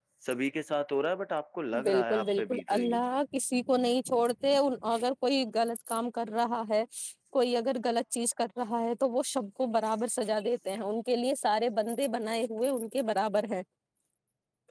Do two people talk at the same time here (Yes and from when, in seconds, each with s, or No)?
Yes, from 1.7 s